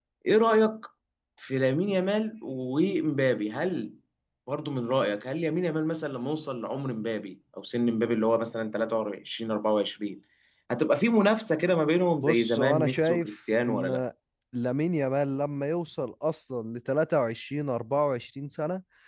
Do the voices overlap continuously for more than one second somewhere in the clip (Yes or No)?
Yes